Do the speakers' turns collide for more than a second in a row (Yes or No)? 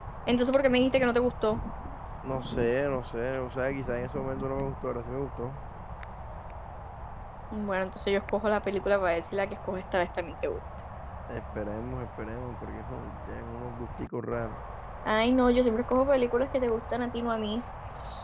No